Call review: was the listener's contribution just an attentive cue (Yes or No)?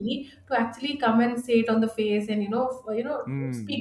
No